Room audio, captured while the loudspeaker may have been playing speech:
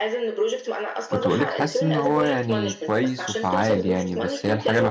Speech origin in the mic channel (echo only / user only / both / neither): both